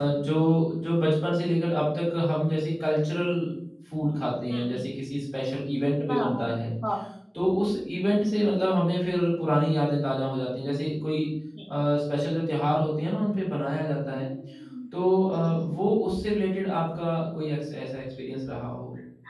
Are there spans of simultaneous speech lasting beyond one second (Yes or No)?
No